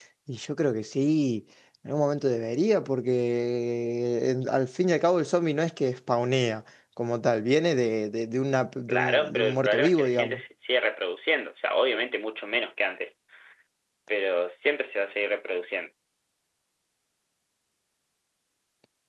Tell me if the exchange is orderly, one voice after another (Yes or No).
No